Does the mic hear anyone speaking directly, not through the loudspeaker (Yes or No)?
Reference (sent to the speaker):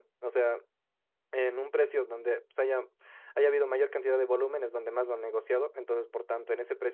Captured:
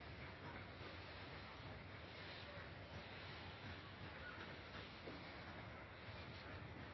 No